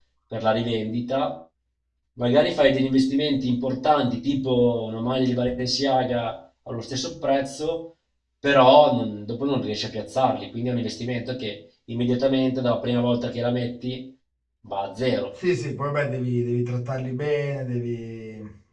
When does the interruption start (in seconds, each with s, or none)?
none